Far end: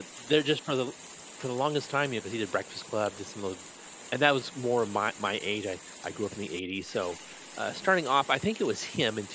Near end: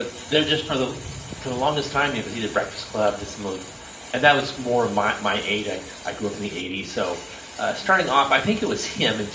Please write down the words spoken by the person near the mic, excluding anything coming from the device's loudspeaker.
none

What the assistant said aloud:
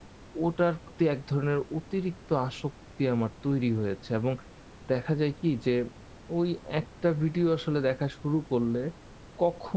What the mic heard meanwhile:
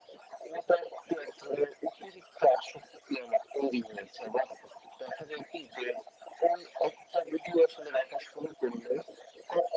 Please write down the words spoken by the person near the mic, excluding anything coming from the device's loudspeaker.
none

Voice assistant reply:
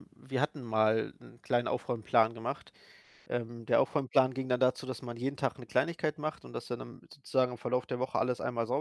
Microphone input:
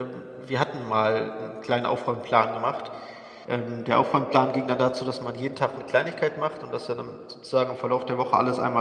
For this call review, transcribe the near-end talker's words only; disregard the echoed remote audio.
none

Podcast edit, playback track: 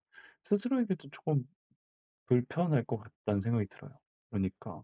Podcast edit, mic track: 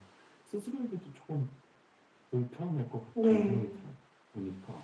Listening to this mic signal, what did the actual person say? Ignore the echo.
네.

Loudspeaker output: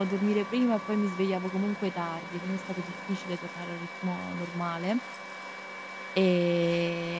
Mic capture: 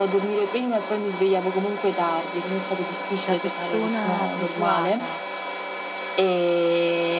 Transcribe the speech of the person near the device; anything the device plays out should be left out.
da persona abituata

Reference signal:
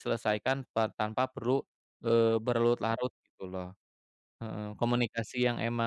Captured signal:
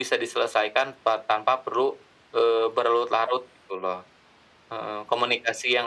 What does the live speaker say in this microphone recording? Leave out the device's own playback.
none

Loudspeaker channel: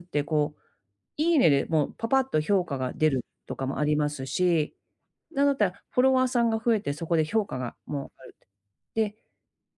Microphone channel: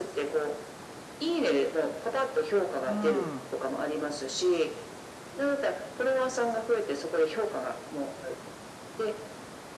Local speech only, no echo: ううーん。

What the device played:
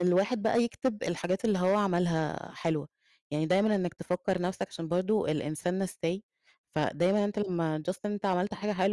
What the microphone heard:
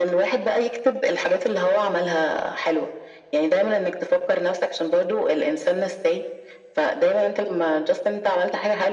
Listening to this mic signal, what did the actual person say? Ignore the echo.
none

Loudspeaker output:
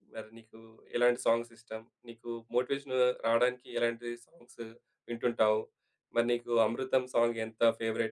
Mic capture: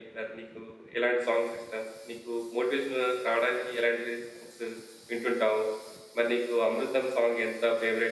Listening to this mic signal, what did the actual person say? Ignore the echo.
none

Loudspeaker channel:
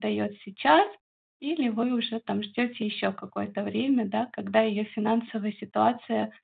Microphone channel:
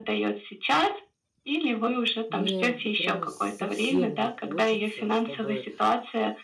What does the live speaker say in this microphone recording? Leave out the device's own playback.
мне прямо с совсем не хочется, чтобы,

